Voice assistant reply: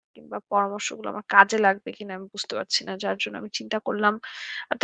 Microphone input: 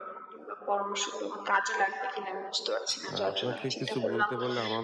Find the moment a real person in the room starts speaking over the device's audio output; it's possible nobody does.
3.1 s

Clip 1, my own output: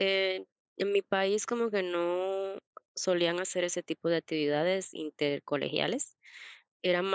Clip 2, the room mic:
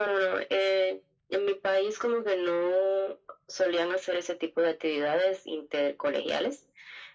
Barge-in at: none

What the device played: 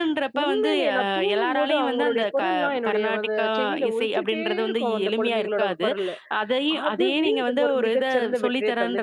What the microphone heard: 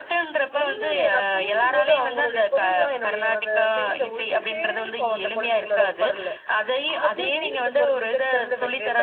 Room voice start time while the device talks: none

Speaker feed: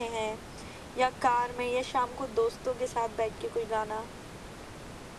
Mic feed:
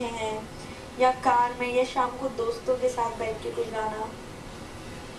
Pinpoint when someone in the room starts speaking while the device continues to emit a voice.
none

